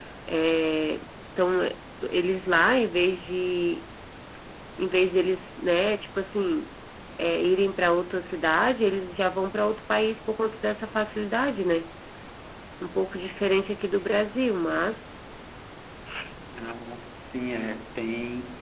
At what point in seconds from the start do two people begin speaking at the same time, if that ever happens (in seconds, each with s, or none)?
none